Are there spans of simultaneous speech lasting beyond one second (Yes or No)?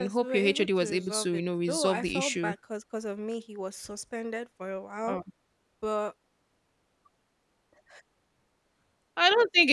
Yes